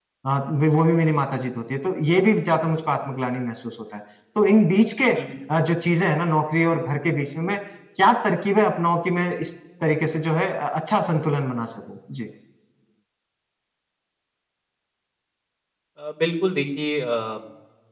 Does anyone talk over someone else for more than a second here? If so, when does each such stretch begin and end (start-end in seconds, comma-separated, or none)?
none